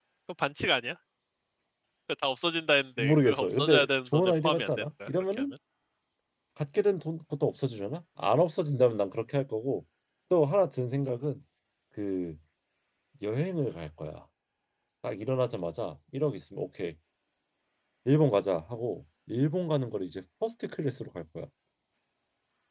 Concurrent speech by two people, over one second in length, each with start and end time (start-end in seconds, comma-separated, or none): 3.0-5.4